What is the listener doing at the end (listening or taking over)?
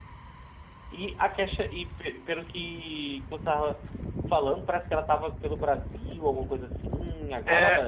taking over